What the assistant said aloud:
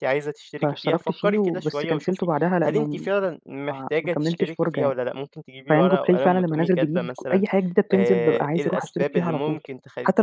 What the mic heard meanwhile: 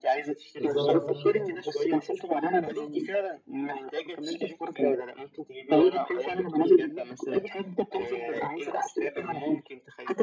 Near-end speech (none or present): present